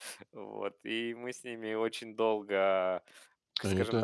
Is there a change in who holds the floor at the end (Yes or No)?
Yes